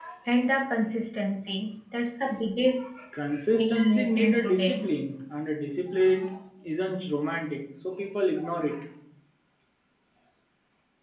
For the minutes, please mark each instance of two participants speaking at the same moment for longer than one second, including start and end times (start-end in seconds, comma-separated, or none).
3.5-4.8